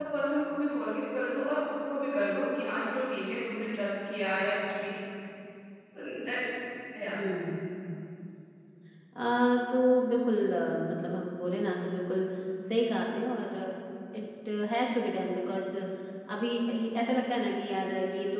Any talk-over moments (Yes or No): No